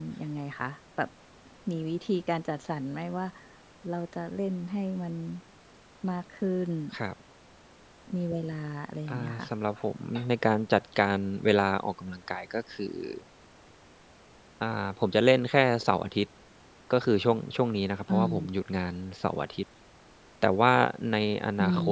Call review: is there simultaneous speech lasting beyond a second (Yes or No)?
No